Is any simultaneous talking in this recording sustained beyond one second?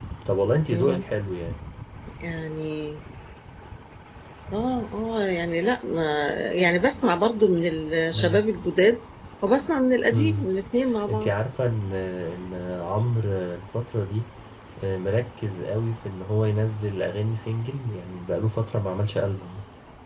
No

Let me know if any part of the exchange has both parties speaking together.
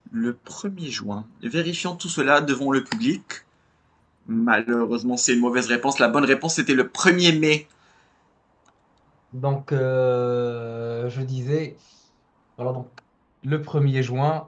No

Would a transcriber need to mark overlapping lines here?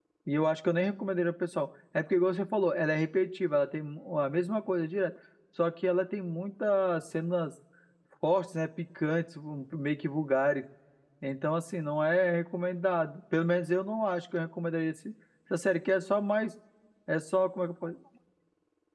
No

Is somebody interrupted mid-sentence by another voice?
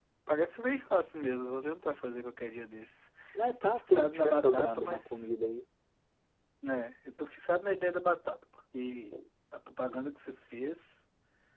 Yes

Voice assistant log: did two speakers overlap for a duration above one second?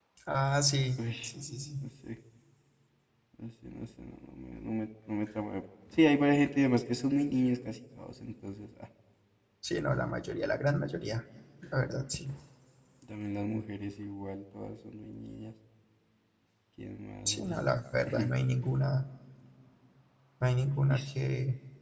No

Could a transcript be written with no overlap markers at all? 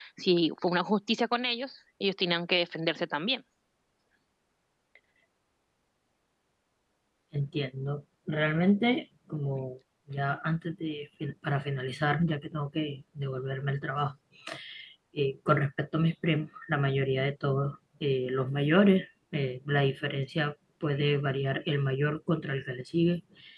Yes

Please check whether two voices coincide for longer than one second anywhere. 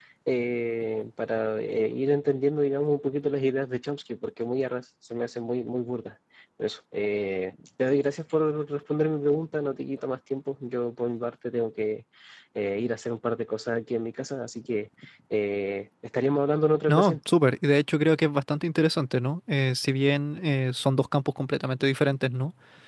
No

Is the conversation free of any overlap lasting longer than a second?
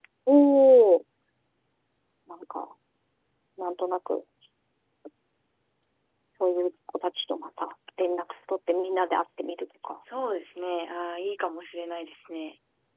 Yes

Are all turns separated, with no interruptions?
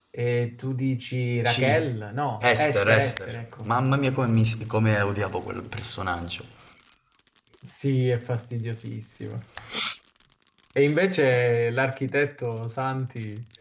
No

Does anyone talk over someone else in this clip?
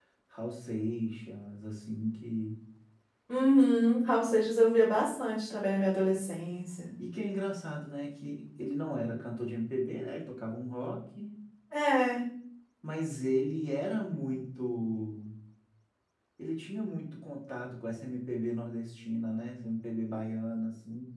No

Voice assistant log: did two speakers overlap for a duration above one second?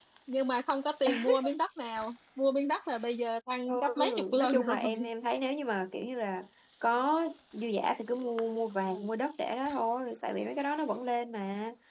Yes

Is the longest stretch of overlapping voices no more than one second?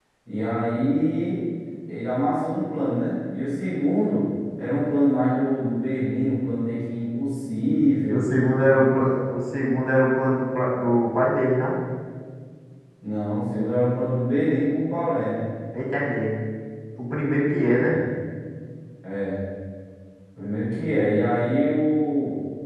Yes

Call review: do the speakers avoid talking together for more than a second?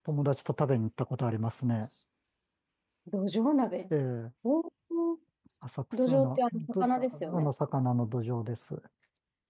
No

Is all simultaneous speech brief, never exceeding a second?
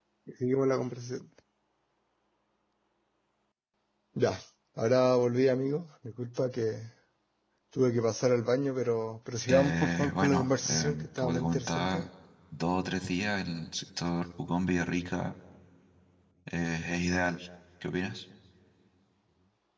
No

